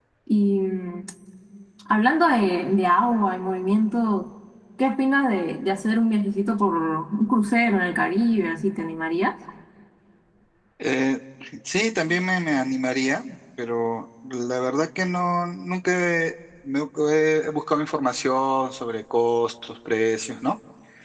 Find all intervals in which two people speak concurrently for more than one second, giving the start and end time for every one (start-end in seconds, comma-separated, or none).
none